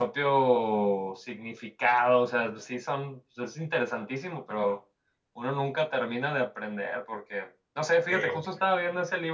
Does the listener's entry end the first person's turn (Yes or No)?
No